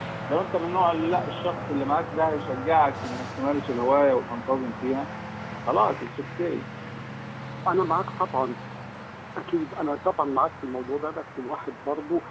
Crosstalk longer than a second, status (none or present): none